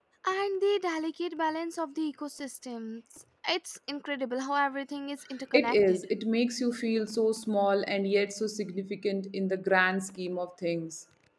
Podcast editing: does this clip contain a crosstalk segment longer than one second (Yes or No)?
No